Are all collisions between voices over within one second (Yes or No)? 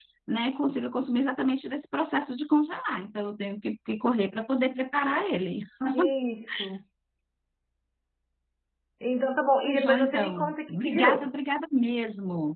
No